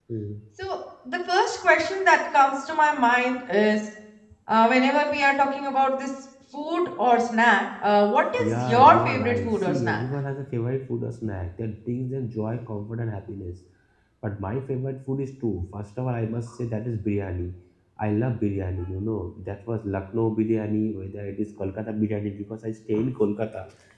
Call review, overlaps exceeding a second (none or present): present